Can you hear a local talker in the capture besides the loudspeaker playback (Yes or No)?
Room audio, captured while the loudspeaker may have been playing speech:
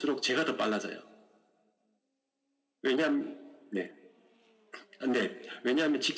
No